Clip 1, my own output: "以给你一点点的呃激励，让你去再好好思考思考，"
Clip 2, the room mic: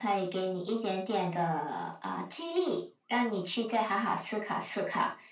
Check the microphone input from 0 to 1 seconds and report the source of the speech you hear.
echo only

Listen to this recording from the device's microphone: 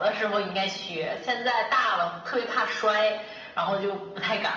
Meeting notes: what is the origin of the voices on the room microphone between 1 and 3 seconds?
echo only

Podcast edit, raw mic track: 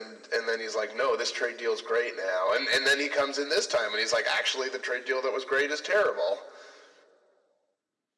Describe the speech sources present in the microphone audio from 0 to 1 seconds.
echo only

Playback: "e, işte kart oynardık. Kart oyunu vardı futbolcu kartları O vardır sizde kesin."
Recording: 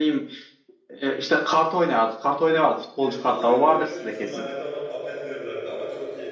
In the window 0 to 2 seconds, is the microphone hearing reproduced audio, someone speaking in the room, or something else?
echo only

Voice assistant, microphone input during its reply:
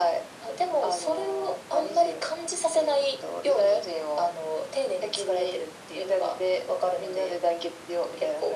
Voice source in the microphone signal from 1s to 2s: echo only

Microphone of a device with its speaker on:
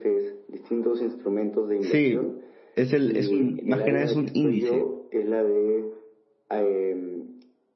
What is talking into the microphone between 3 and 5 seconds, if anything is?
both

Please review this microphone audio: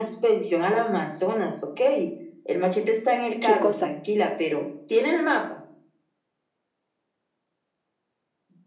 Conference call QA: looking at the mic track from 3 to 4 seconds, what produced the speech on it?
both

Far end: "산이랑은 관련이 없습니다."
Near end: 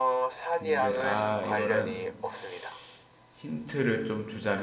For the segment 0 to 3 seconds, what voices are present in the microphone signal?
both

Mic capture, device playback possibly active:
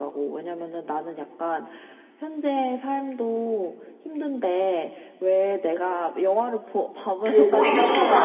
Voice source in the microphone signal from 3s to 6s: echo only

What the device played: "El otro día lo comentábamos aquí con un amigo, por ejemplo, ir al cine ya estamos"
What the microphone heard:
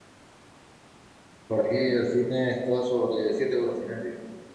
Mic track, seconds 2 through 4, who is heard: user only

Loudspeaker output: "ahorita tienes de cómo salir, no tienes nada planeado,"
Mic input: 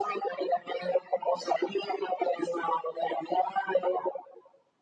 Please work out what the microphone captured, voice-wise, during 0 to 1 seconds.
echo only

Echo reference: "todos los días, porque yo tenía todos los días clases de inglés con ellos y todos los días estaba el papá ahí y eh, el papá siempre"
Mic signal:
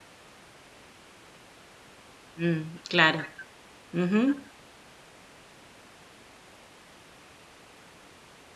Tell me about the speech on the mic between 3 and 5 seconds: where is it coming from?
user only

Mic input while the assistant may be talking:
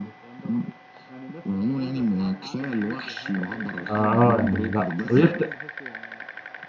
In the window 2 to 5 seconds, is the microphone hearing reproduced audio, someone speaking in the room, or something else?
both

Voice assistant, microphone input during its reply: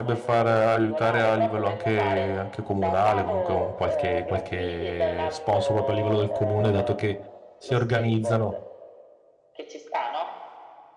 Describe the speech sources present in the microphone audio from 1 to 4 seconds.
both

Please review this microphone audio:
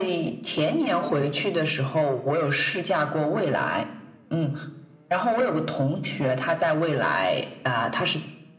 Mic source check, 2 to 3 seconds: echo only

